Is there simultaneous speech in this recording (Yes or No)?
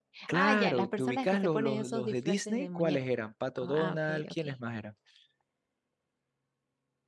Yes